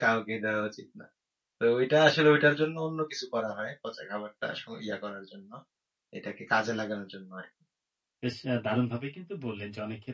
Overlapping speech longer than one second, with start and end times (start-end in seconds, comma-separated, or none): none